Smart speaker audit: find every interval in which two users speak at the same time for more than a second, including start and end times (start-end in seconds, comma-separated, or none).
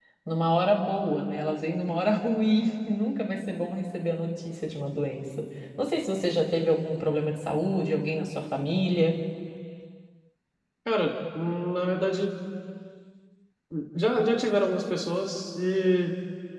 none